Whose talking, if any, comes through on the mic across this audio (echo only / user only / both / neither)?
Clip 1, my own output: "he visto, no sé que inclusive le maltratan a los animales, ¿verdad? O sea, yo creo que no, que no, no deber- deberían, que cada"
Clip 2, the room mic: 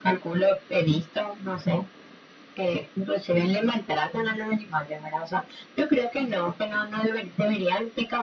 echo only